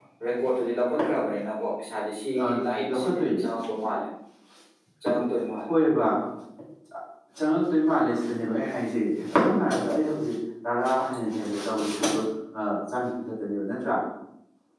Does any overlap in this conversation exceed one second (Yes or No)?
No